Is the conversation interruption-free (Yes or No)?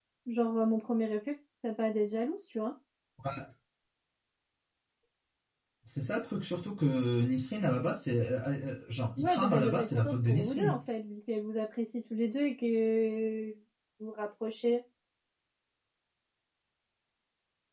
No